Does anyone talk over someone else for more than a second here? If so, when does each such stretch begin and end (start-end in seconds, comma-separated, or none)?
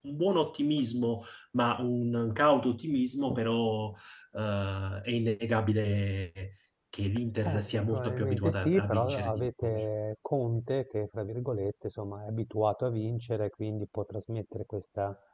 7.5-9.8